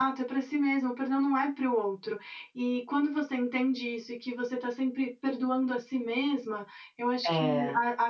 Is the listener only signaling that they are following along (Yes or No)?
Yes